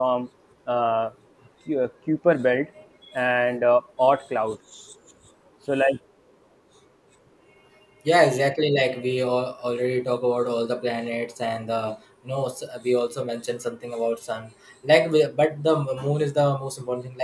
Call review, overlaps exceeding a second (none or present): none